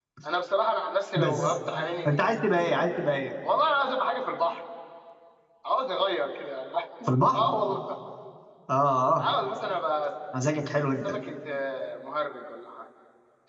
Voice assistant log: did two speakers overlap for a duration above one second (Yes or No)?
No